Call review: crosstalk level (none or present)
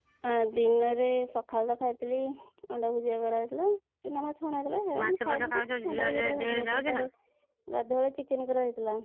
present